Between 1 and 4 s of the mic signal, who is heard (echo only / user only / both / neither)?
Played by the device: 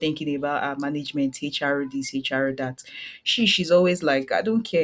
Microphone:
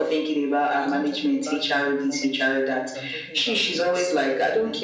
both